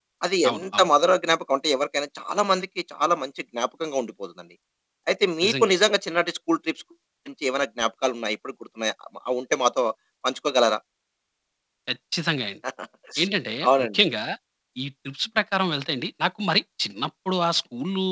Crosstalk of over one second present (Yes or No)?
No